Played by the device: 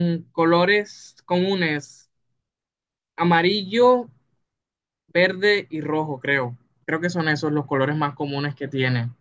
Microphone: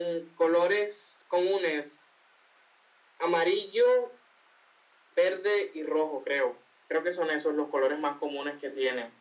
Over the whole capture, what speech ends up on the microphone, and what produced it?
echo only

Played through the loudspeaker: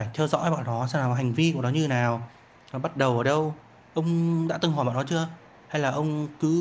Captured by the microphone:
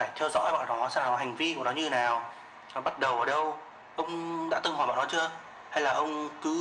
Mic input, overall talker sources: echo only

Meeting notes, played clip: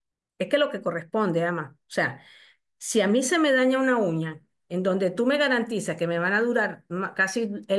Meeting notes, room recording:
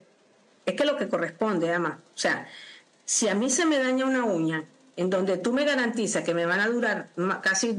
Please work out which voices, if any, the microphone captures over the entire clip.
echo only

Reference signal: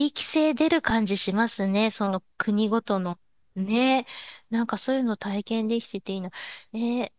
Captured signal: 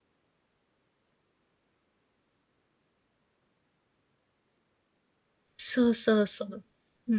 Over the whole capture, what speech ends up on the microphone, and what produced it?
user only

